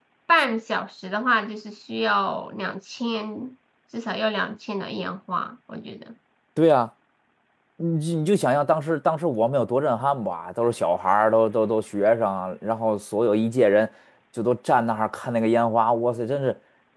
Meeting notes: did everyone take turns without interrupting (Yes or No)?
Yes